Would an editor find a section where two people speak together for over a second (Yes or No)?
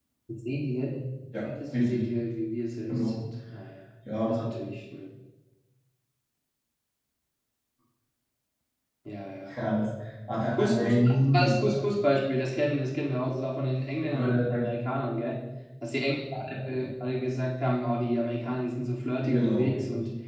Yes